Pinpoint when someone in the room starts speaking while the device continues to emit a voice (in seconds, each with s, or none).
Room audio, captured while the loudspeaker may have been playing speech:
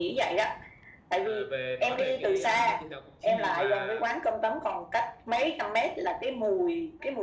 1.1 s